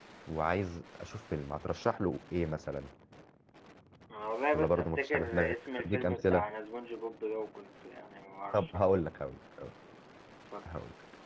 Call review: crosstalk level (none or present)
present